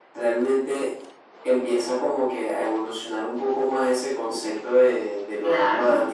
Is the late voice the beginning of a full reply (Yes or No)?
No